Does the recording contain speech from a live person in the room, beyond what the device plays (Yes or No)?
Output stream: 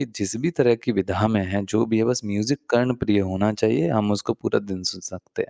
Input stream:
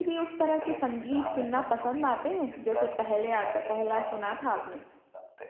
Yes